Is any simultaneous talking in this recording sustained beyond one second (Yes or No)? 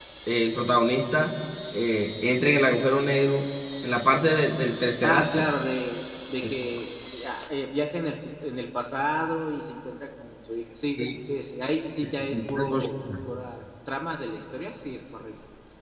No